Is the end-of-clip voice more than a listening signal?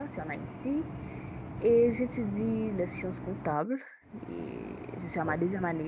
No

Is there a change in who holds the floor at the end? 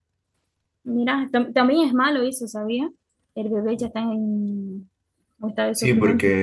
Yes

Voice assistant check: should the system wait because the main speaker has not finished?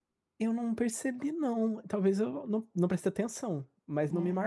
Yes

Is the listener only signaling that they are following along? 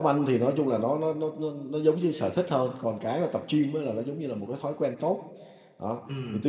Yes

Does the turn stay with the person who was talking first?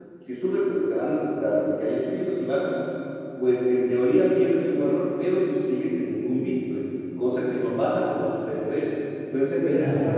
Yes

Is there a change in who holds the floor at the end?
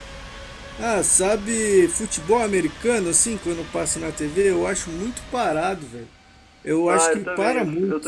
Yes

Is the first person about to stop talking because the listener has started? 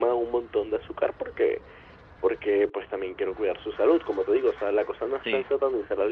No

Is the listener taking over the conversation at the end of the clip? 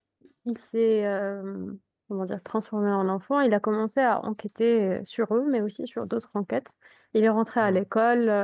No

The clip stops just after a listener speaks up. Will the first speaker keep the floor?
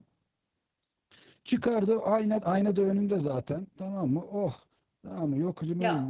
No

